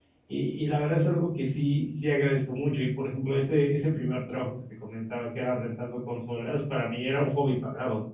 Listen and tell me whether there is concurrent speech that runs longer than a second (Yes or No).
No